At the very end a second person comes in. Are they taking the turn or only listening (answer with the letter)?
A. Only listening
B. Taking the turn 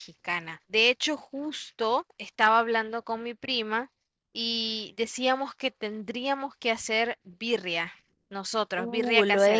B